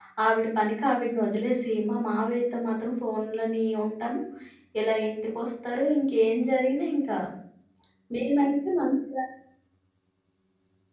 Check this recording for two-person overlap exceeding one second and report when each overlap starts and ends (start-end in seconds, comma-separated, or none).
none